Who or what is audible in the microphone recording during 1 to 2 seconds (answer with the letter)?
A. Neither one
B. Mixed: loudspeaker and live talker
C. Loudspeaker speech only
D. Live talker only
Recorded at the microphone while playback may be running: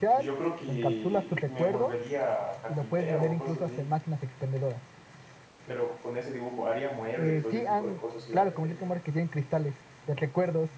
B